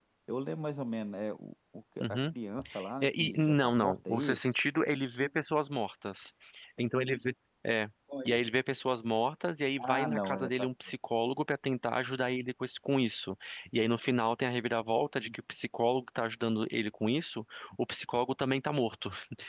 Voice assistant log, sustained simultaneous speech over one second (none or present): present